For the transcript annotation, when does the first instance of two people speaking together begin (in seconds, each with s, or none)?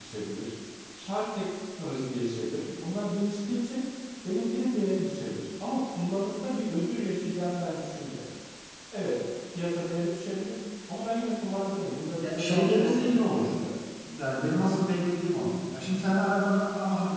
12.2 s